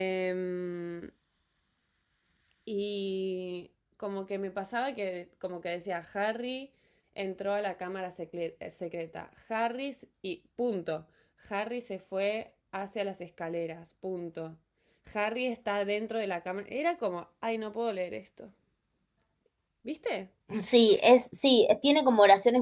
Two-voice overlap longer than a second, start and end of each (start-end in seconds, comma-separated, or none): none